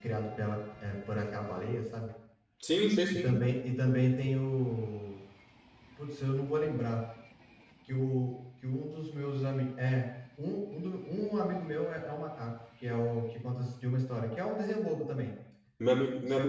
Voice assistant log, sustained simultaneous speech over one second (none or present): none